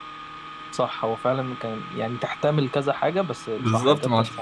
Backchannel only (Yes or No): No